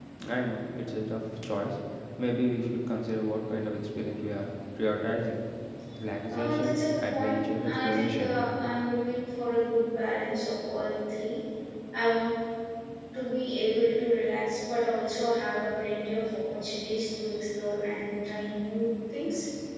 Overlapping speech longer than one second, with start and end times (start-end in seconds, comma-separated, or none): 6.3-8.4